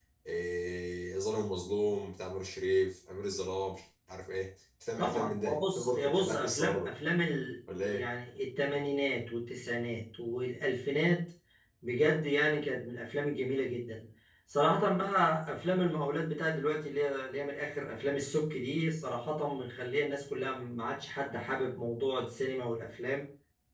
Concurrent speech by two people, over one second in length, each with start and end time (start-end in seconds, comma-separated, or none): 5.0-6.9